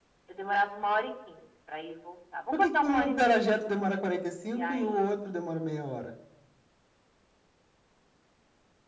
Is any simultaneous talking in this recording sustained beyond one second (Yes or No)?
Yes